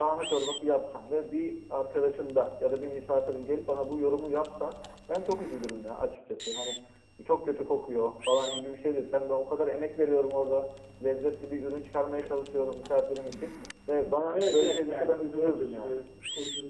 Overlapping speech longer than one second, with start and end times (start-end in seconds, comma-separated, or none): 14.3-16.0